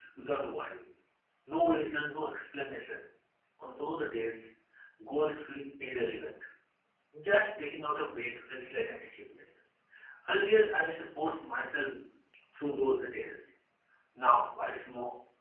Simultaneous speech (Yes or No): No